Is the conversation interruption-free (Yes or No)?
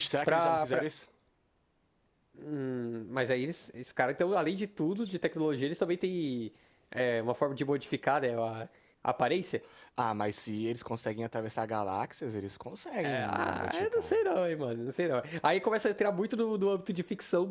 No